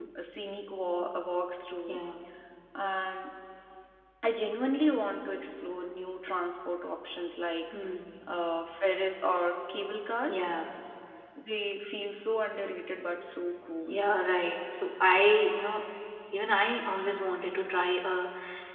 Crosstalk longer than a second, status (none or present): none